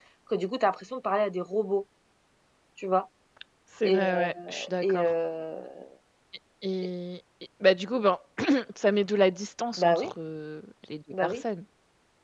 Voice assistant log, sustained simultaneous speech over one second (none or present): present